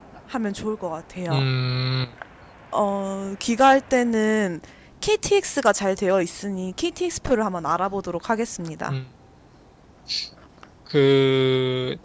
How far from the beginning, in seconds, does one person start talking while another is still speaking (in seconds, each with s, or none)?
none